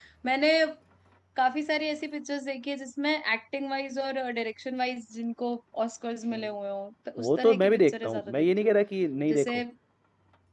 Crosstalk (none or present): present